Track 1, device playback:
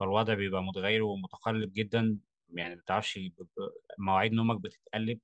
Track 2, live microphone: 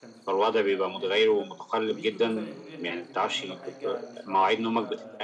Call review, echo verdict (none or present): present